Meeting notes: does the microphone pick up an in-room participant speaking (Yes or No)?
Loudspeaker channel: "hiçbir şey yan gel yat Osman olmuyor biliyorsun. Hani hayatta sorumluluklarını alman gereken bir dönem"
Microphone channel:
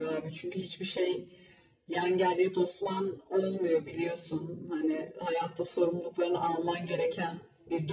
No